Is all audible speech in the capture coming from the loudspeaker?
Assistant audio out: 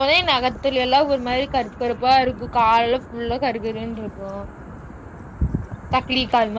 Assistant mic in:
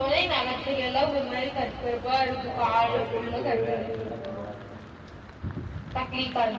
No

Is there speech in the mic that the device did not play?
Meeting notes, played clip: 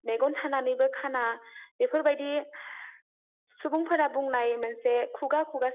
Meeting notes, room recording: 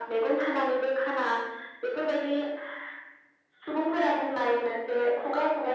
No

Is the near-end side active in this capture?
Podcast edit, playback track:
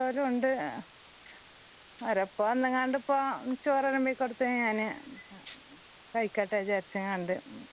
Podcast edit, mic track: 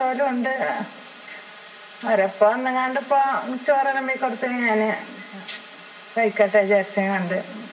No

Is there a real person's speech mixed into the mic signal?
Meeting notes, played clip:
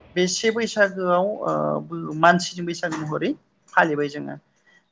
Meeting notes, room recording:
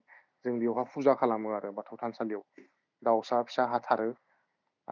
Yes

